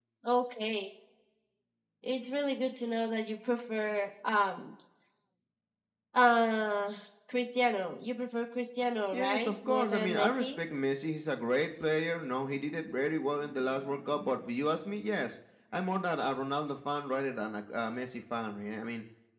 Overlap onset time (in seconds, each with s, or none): 9.1 s